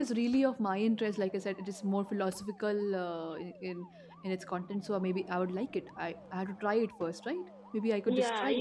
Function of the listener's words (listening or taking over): taking over